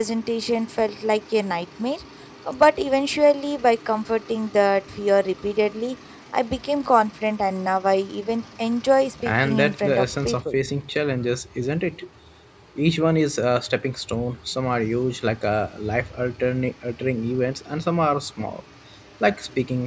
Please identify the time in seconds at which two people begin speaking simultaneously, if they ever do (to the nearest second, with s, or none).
9 s